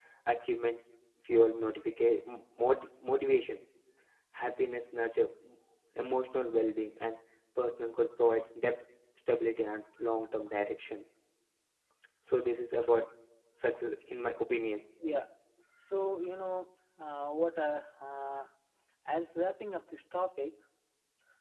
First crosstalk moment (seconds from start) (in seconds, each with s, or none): none